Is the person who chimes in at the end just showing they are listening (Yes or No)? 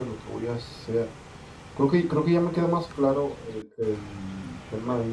Yes